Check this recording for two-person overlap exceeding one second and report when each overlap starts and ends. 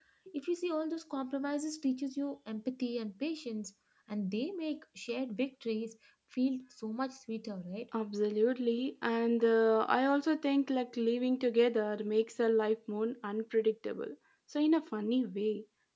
none

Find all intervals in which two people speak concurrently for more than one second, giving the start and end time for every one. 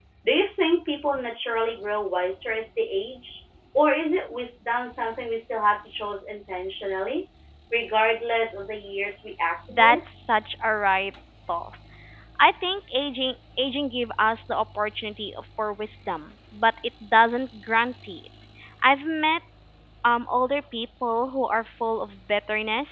none

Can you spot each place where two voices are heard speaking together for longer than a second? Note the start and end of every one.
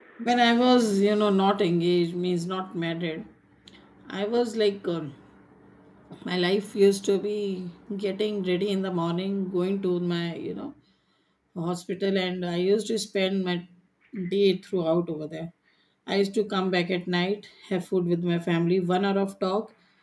none

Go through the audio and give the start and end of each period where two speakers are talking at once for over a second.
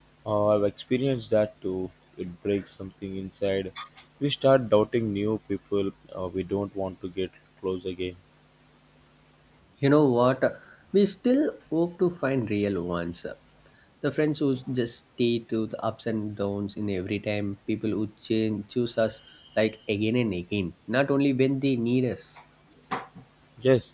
none

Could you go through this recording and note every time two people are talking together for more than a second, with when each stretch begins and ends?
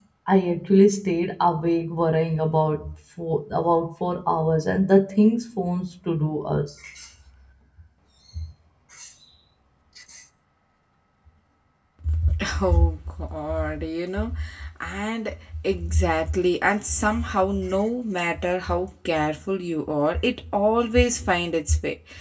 none

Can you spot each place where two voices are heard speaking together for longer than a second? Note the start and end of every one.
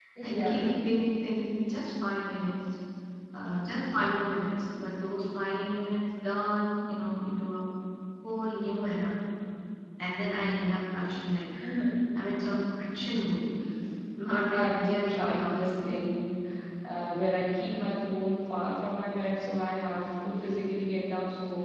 14.5-16.0

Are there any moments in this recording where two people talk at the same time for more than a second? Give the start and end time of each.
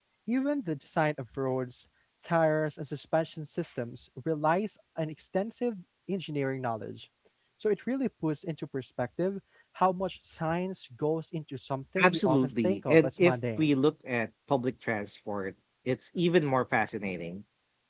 12.0-13.8

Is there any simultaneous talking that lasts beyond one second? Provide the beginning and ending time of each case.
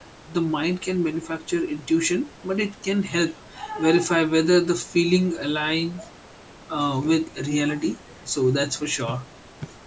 none

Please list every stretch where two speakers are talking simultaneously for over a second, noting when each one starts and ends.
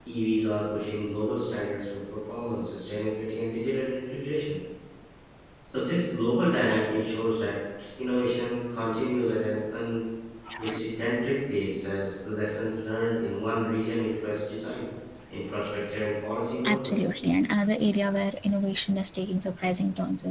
none

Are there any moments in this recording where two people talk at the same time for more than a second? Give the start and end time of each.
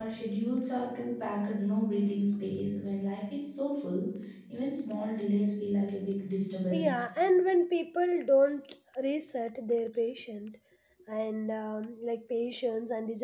none

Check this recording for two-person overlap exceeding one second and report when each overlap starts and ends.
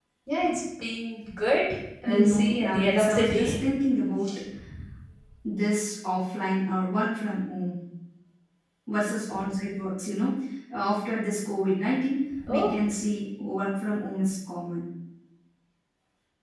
2.0-3.6

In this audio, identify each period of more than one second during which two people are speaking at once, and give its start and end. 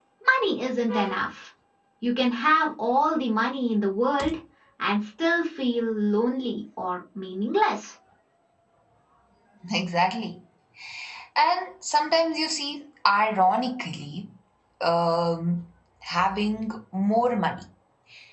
none

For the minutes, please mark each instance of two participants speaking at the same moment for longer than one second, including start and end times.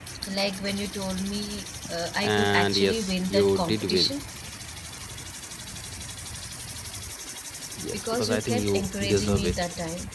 2.2-4.1, 7.9-9.5

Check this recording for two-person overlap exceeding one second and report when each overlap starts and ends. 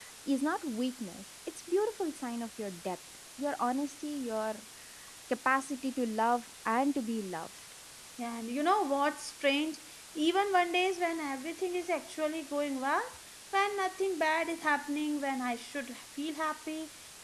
none

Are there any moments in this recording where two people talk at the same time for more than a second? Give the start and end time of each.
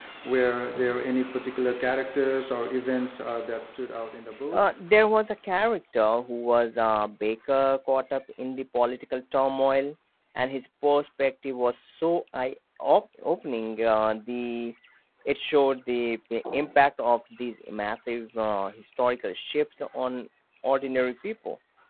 none

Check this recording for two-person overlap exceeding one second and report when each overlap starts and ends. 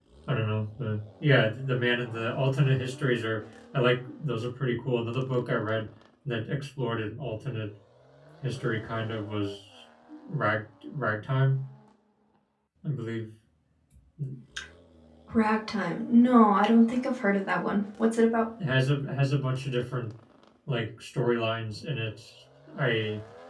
none

